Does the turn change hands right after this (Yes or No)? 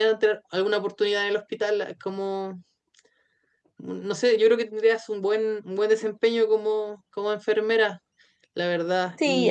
Yes